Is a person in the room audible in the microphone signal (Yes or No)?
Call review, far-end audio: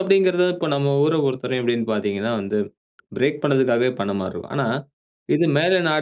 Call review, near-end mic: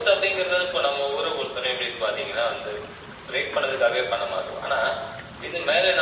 No